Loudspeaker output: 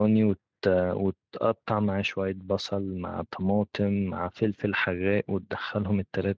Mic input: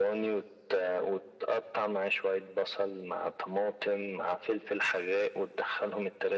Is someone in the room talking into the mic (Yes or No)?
No